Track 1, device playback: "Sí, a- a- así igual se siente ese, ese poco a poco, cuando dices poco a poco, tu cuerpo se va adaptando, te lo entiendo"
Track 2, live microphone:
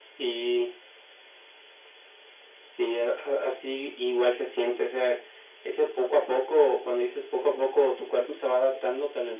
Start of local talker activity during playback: none

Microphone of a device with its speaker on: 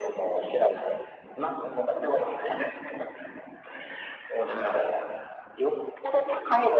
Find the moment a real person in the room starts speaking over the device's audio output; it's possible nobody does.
none

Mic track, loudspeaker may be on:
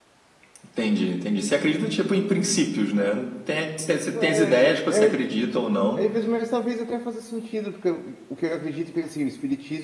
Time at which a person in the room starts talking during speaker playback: 4.1 s

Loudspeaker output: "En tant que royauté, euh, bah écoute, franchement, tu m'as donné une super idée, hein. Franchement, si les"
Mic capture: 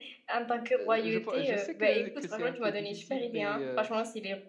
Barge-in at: 0.8 s

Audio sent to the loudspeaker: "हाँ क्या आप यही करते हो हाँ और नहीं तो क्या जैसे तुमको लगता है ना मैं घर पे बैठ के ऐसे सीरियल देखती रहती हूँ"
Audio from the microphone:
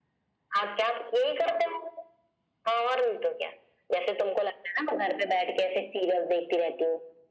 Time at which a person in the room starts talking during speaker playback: none

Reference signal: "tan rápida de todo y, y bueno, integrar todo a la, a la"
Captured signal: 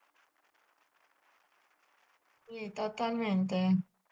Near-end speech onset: 2.5 s

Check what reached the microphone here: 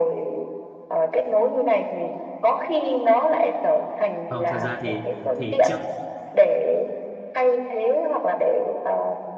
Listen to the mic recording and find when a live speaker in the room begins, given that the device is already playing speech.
4.3 s

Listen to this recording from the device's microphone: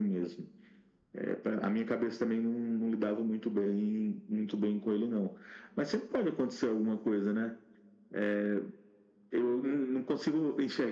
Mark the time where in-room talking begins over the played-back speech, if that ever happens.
none

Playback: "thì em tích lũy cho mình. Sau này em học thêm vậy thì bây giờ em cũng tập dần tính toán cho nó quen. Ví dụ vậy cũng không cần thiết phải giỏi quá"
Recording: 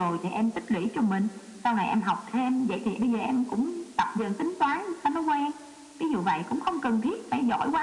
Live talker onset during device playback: none

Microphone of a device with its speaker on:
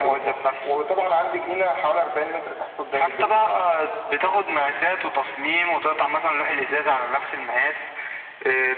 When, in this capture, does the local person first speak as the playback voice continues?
none

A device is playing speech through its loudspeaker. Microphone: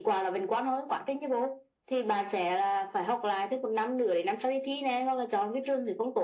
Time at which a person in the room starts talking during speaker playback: none

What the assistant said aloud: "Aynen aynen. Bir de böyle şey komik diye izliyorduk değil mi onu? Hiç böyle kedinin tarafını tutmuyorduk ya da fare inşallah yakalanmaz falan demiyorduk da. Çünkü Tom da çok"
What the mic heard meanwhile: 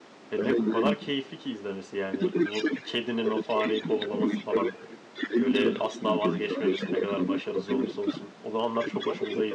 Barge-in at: 0.3 s

